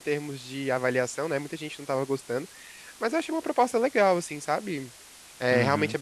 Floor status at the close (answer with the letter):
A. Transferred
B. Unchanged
B